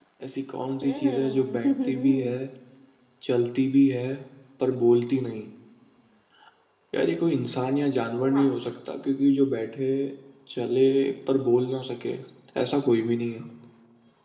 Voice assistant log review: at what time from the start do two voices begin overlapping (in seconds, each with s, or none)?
0.9 s